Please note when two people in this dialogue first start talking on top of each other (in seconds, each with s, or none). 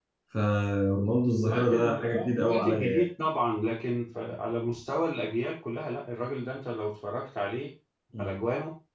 1.4 s